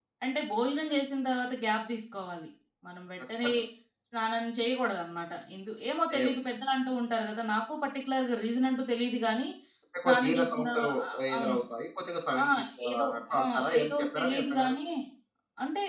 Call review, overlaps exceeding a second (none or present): present